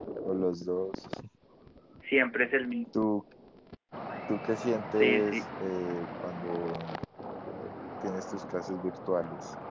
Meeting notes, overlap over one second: none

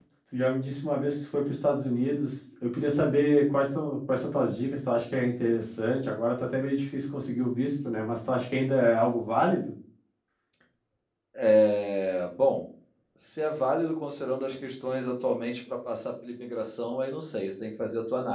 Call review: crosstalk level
none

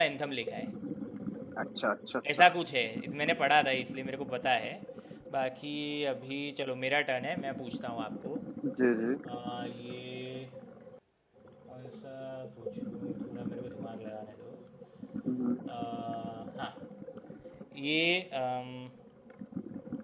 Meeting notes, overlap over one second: none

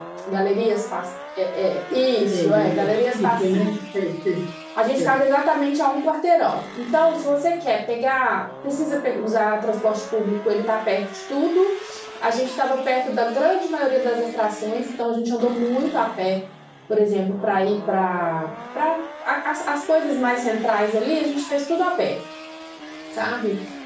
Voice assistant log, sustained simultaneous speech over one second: present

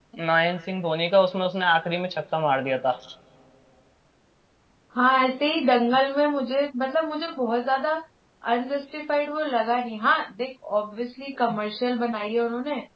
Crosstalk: none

